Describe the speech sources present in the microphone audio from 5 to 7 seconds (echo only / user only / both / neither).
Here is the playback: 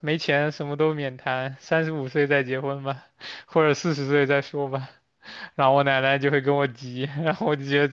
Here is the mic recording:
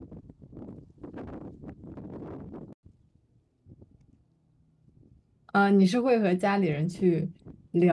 user only